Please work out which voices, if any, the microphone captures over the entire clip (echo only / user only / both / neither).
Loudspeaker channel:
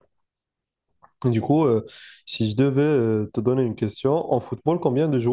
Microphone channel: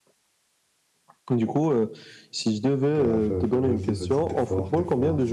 both